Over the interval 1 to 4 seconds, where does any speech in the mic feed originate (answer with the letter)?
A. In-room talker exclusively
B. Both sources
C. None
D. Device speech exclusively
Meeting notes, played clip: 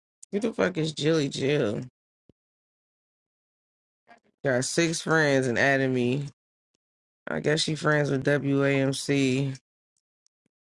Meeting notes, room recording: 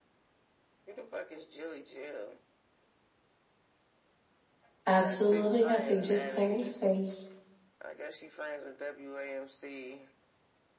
D